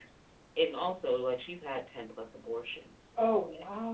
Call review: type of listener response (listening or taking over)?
taking over